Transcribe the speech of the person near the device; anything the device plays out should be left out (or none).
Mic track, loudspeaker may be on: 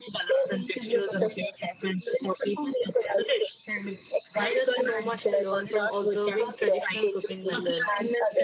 And there's so much to learn from observing traditional cooking methods